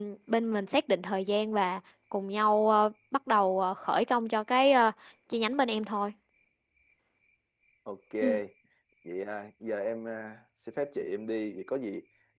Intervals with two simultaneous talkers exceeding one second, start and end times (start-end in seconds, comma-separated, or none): none